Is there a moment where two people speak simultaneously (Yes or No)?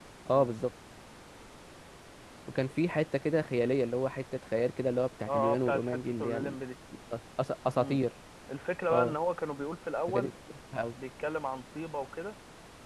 Yes